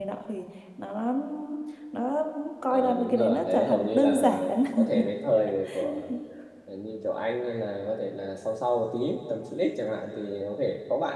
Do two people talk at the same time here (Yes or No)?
Yes